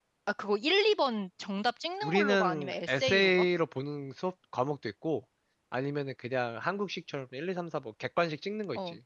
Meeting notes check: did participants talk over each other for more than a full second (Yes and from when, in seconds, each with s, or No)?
Yes, from 2.0 s